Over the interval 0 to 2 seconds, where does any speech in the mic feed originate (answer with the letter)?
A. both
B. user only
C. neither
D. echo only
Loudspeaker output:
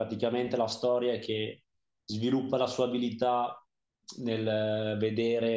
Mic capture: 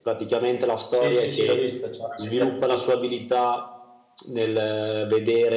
A